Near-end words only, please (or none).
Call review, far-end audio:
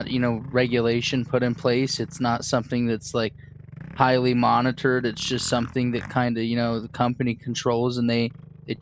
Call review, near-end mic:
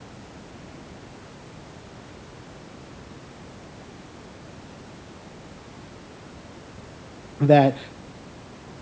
that